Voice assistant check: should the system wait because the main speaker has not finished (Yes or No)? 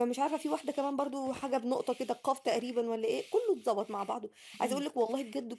Yes